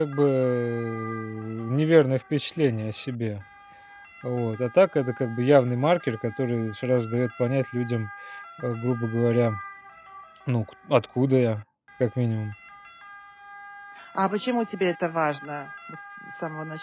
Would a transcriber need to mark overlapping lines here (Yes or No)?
No